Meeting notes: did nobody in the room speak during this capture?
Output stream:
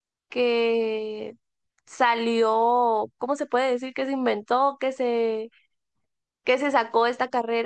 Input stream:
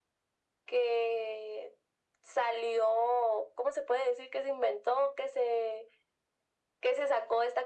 Yes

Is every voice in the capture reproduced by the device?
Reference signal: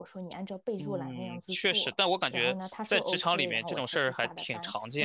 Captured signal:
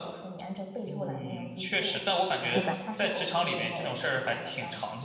No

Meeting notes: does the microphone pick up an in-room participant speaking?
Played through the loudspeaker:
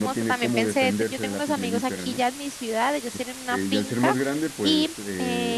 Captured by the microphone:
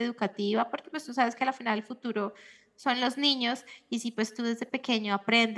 Yes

